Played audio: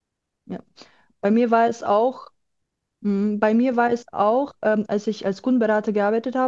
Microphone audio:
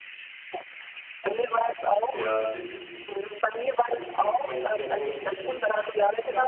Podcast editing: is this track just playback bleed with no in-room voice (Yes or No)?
No